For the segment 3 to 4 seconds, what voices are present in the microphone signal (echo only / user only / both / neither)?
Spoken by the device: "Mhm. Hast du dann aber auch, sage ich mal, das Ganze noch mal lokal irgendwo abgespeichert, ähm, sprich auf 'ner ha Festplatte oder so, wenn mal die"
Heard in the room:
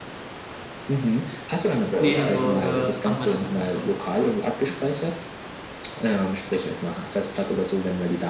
both